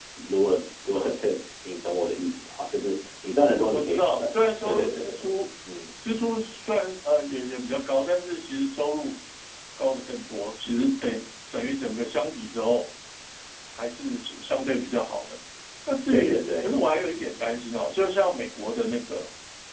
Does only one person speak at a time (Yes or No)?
No